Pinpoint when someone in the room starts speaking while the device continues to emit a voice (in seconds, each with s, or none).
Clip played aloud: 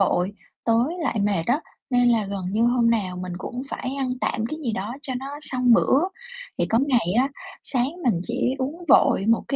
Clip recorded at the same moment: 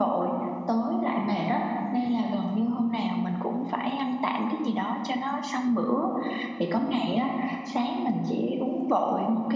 none